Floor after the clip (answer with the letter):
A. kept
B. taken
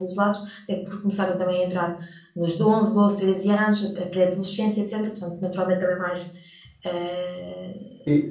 A